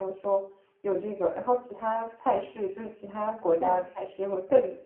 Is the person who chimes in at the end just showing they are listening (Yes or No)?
Yes